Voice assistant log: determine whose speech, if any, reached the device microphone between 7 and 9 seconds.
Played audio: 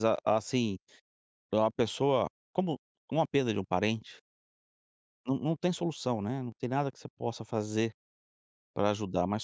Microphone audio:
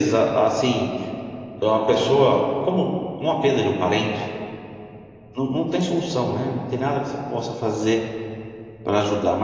echo only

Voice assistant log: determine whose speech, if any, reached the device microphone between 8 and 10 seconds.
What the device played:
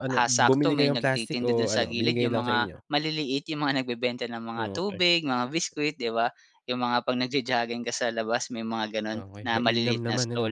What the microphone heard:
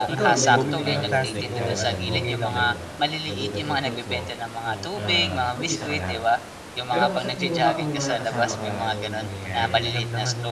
both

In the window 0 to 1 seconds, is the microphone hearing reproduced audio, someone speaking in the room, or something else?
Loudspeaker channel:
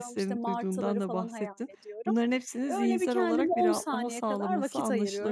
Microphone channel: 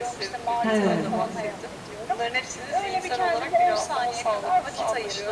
both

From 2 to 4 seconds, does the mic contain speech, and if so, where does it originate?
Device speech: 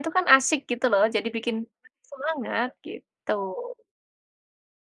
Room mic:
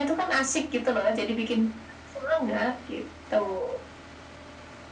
echo only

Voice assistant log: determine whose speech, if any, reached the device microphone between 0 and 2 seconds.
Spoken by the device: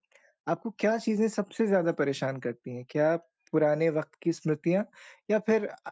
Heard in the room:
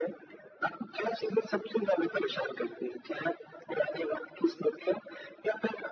echo only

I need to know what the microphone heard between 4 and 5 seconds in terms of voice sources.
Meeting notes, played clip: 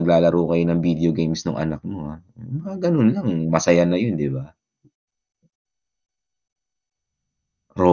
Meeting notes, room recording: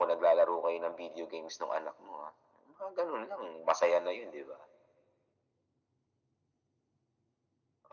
echo only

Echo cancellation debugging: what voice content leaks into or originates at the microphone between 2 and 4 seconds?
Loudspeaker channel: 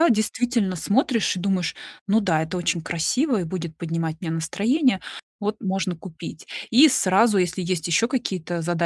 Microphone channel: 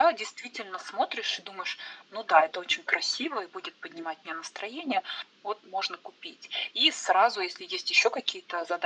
echo only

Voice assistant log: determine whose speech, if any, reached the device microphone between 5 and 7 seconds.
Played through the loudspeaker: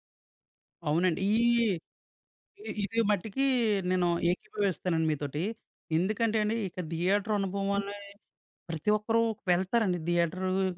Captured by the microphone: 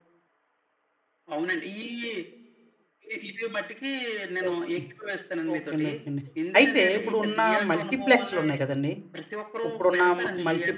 both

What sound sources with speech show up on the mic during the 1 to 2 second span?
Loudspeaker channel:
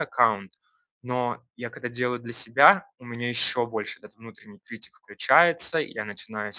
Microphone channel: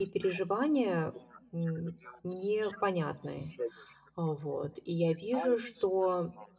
both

